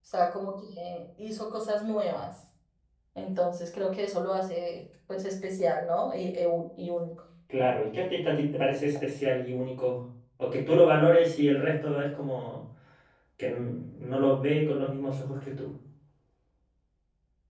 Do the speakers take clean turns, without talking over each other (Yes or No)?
Yes